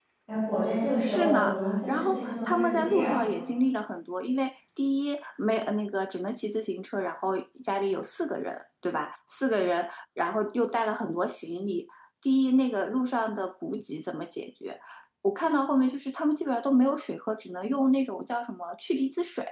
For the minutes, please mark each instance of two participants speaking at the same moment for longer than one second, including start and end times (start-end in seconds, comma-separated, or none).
1.0-3.2